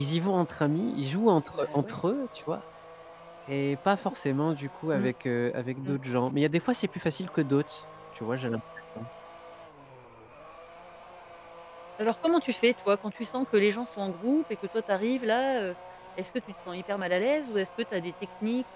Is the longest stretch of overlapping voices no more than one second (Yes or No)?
Yes